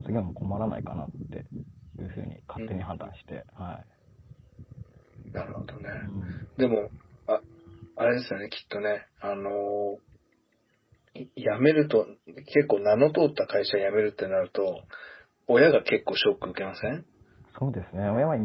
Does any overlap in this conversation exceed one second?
No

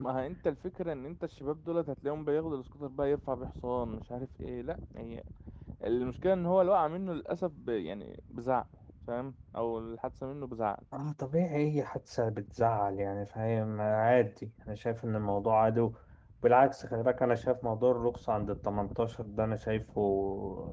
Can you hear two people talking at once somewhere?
No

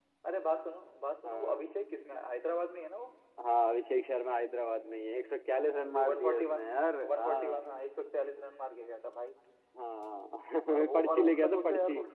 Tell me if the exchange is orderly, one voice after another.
No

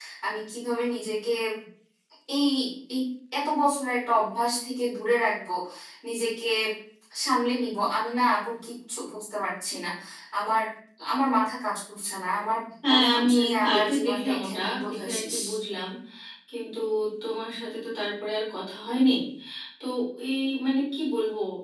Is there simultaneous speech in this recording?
Yes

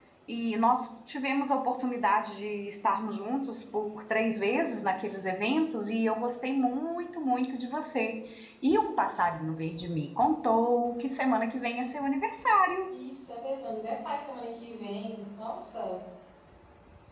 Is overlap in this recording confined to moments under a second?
Yes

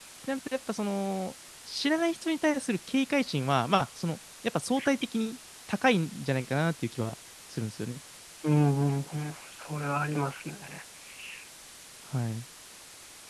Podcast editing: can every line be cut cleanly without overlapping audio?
Yes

